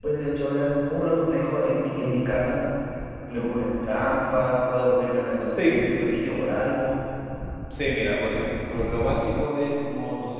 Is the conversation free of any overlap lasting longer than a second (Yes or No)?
Yes